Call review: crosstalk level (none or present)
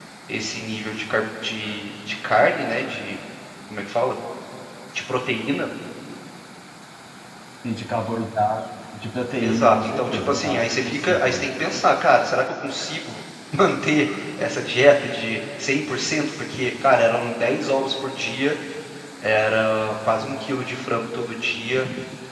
present